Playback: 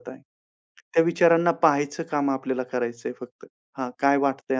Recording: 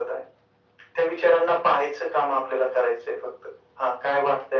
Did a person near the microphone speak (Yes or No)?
No